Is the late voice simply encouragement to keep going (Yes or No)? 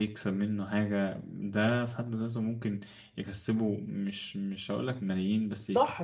No